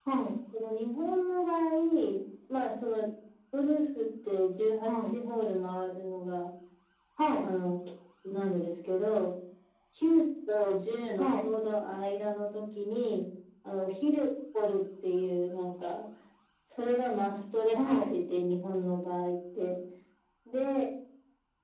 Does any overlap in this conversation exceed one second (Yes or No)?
No